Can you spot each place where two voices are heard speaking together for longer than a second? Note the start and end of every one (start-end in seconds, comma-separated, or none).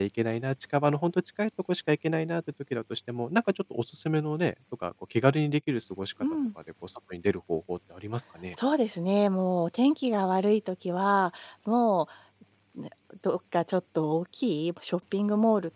none